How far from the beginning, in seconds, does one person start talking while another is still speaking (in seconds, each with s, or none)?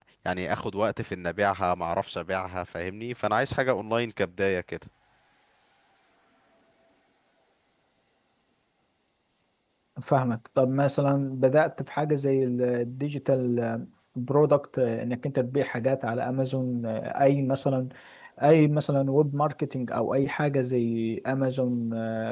none